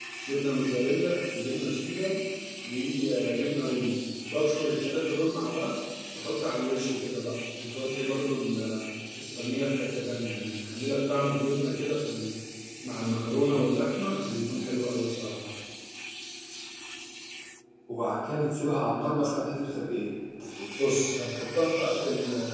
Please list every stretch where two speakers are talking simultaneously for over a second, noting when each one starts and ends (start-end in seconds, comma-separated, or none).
none